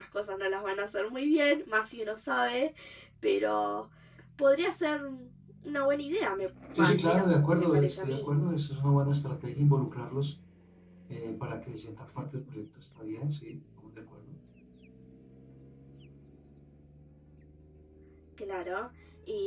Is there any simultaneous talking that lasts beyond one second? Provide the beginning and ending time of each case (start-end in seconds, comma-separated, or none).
6.8-8.3